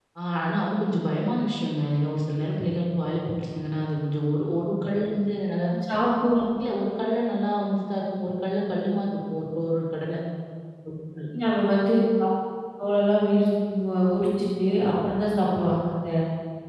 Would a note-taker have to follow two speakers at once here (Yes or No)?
No